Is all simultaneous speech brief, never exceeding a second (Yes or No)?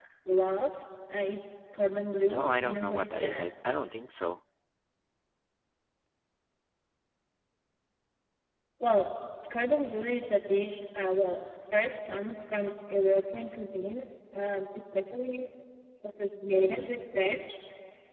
No